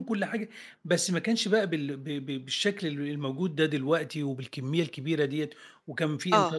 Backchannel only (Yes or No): Yes